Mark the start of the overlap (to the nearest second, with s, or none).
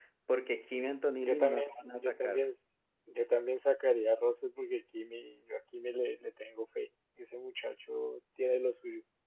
1 s